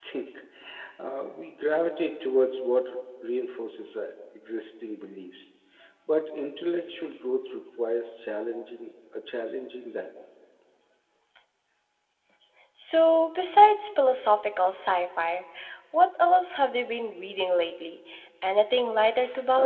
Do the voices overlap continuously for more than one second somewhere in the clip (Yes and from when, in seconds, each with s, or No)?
No